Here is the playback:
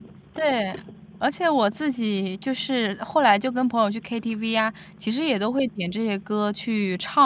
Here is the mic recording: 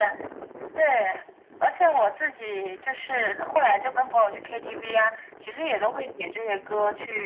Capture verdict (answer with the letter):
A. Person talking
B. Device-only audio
B